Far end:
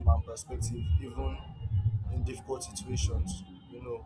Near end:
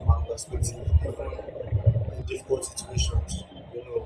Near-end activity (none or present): none